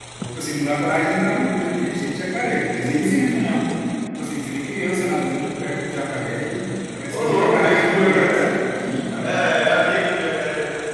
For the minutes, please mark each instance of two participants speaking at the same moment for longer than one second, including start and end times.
7.1-8.4

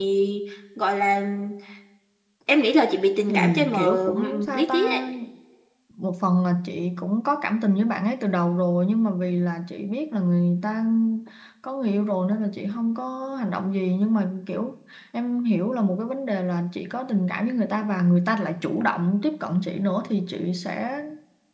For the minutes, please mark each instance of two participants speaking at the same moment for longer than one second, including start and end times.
3.3-4.8

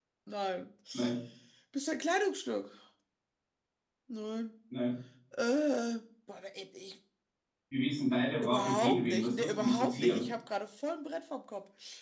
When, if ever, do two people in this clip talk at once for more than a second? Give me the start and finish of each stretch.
8.4-10.2

